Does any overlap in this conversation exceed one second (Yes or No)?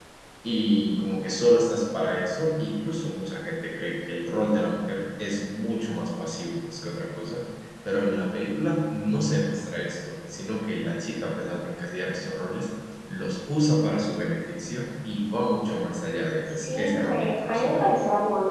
Yes